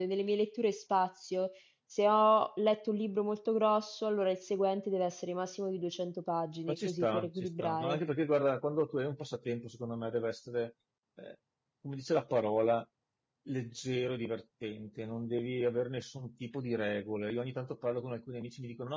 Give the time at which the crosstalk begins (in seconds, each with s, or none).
6.7 s